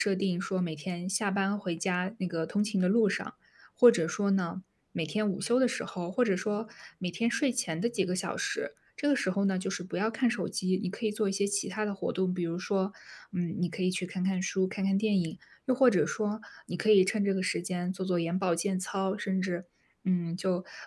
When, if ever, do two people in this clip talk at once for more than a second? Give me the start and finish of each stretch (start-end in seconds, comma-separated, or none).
none